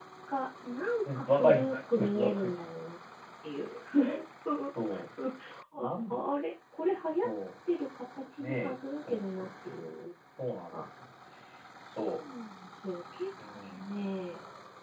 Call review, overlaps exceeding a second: present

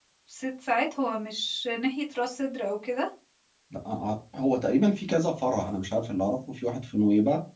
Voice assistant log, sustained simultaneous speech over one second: none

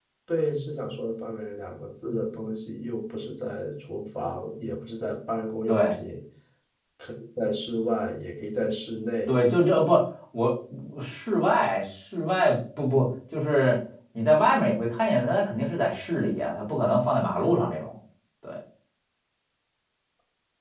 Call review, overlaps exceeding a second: none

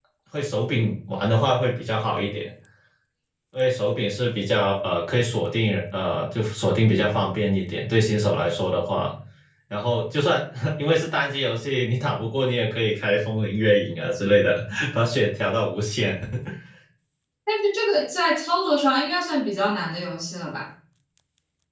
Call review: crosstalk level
none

